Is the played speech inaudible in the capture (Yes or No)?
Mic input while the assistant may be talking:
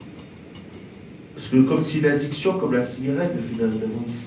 Yes